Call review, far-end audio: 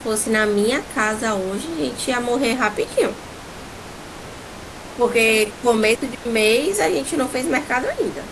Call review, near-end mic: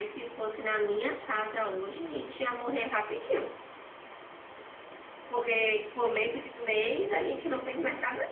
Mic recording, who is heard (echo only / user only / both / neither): echo only